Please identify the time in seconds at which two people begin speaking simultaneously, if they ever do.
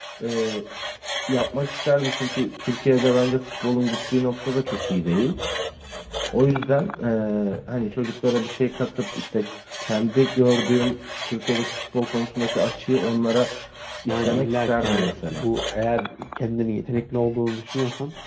14.1 s

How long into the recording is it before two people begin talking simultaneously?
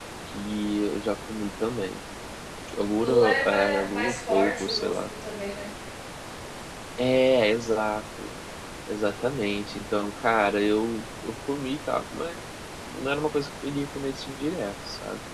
3.0 s

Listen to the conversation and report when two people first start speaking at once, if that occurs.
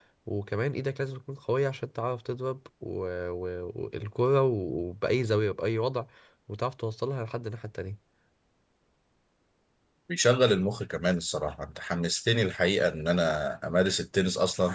none

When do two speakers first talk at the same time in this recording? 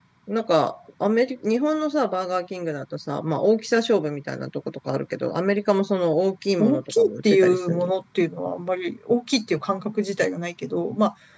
6.6 s

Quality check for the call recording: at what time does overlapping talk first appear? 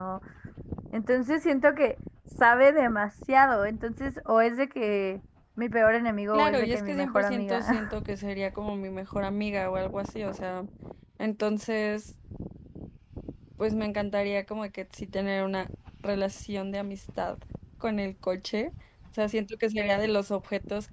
6.3 s

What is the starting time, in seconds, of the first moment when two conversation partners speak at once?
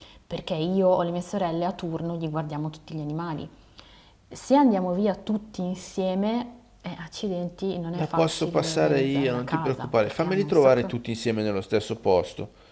8.0 s

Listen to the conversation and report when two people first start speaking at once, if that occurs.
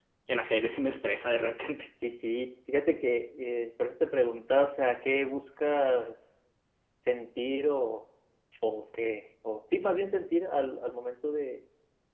none

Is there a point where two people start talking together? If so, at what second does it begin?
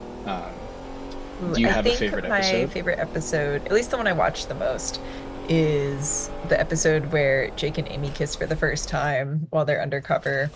1.5 s

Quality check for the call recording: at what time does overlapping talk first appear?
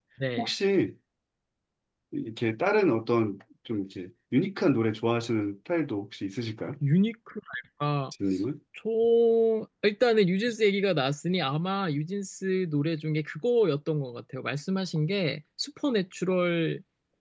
none

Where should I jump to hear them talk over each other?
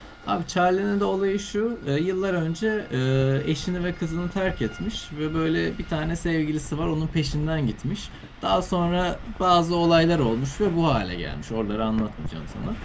none

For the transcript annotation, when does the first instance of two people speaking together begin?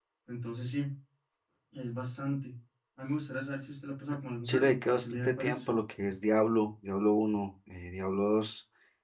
4.5 s

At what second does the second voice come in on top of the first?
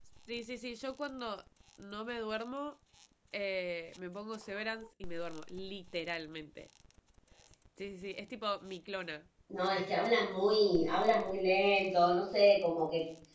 none

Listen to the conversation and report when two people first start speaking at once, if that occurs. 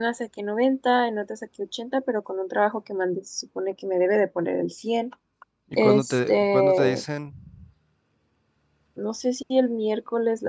5.8 s

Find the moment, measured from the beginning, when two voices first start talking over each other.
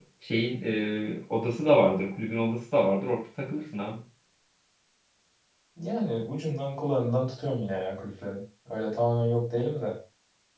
none

